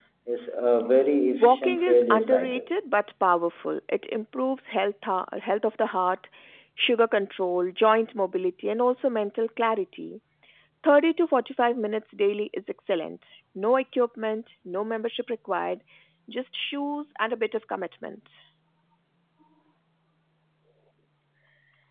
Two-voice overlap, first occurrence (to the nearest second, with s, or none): 1 s